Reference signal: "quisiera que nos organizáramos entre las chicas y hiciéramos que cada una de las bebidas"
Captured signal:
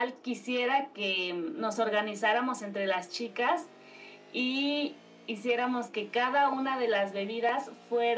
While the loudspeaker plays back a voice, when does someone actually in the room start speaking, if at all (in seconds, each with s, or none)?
none